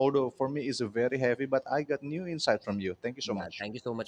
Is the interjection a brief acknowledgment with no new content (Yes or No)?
No